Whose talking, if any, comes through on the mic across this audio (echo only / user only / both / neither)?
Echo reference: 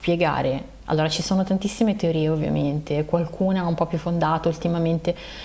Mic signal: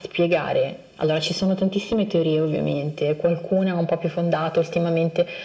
echo only